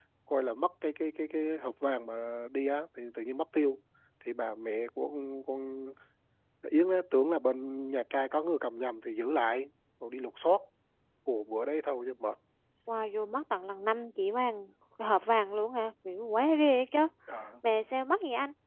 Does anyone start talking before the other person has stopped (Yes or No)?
No